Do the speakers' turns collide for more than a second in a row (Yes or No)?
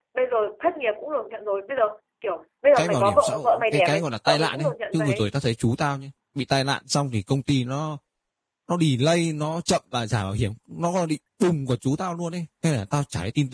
Yes